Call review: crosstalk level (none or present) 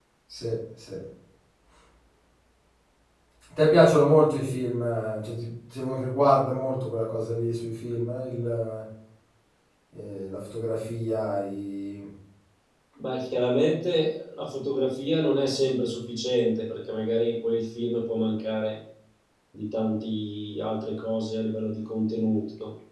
none